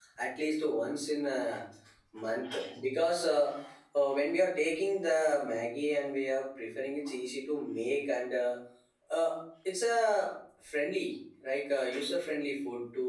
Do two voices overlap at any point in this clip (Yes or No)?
No